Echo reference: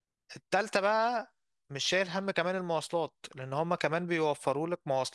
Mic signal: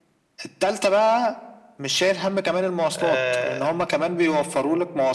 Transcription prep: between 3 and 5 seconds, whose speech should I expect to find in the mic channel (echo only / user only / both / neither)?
both